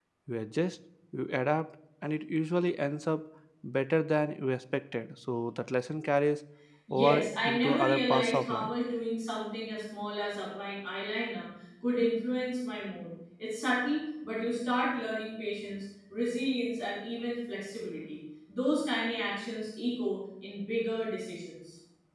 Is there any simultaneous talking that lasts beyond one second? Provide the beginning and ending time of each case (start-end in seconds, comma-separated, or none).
6.9-8.7